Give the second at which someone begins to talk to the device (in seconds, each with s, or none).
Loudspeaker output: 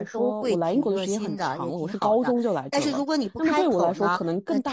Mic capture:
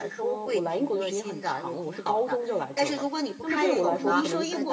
3.5 s